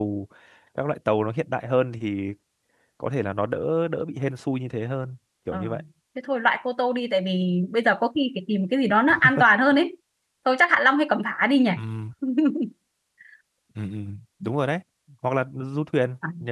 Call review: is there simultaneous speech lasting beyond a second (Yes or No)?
No